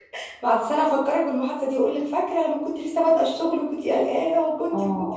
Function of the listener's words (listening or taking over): taking over